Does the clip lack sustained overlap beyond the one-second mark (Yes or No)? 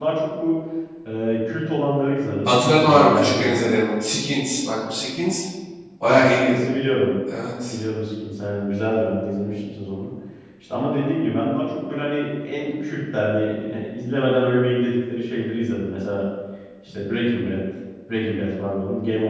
No